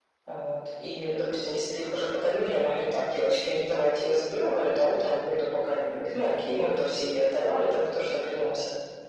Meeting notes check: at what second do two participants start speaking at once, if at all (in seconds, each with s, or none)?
none